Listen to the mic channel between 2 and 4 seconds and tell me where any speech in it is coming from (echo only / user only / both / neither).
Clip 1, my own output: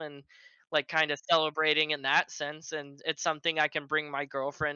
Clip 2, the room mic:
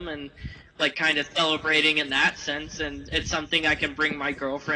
echo only